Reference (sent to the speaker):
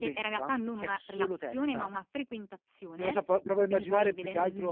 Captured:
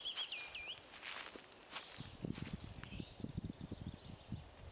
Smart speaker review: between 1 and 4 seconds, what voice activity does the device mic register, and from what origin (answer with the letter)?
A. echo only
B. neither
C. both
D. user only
B